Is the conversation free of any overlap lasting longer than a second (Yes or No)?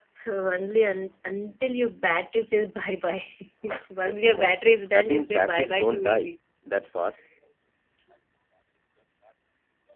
No